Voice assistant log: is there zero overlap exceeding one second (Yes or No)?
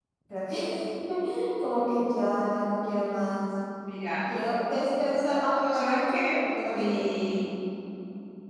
No